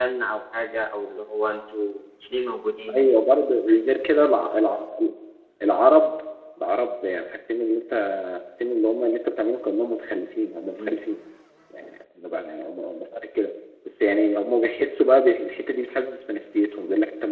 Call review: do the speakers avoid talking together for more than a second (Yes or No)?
Yes